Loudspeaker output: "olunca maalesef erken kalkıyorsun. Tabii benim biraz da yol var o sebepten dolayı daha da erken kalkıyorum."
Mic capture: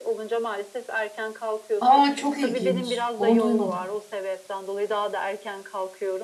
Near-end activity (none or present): present